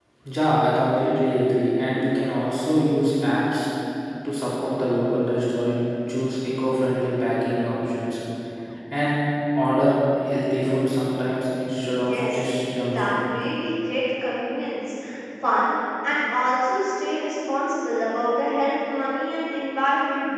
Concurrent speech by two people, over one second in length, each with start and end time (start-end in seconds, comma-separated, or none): none